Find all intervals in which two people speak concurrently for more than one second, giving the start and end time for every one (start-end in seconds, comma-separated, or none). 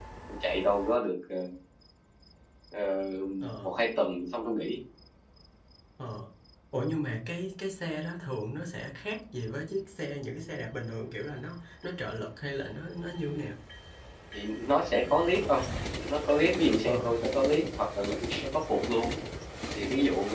none